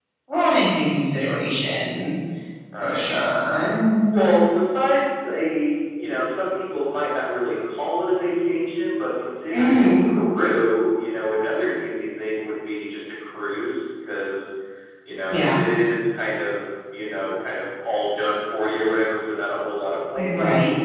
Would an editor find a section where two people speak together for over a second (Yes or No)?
No